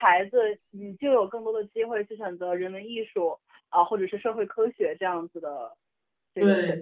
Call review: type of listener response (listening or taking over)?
taking over